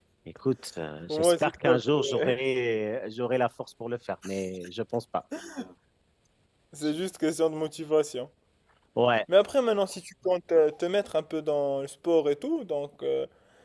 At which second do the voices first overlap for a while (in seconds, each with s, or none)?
1.1 s